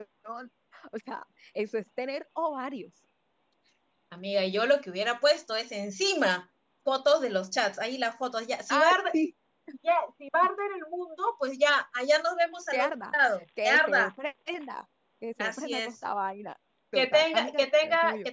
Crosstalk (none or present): present